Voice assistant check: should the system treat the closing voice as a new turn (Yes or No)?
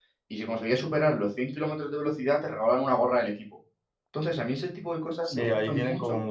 Yes